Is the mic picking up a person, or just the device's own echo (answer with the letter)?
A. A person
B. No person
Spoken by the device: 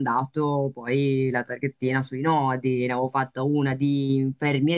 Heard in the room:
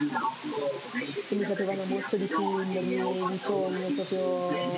A